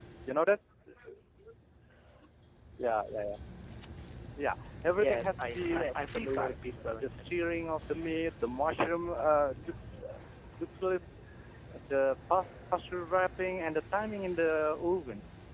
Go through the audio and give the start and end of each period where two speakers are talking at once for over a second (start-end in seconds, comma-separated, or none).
5.0-7.2